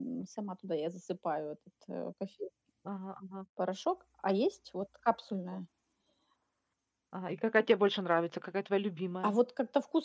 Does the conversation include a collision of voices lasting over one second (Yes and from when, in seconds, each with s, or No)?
No